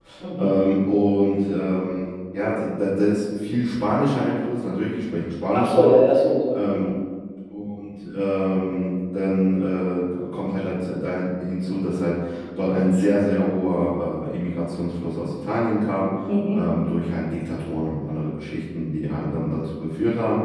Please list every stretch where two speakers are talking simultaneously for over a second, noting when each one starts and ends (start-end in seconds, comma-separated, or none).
none